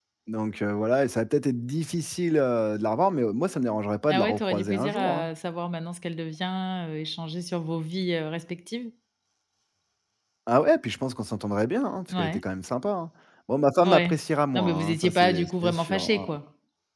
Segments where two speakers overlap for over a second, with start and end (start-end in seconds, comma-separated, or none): 4.1-5.3, 14.5-16.3